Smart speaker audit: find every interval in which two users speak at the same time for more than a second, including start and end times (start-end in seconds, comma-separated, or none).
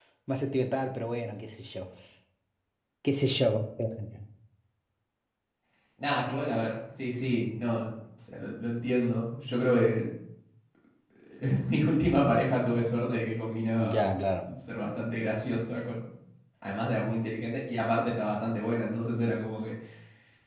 none